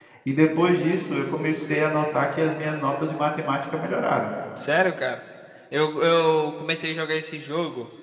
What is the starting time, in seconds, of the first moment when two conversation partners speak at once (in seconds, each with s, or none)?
none